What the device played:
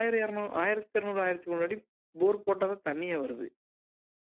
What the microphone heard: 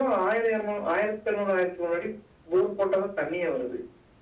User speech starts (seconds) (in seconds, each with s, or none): none